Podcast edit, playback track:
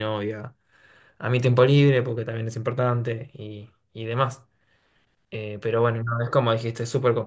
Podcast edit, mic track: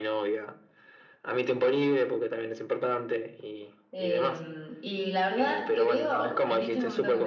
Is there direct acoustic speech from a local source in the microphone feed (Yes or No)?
Yes